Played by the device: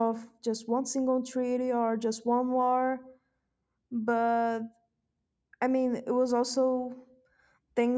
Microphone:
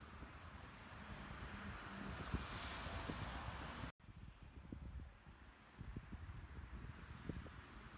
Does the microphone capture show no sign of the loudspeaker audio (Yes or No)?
Yes